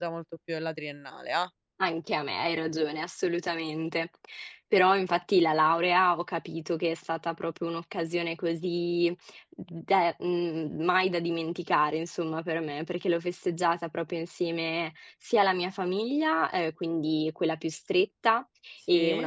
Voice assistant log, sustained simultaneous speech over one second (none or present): none